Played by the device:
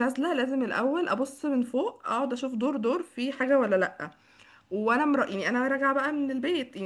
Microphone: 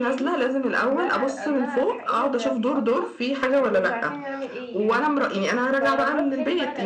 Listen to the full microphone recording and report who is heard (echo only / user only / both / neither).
both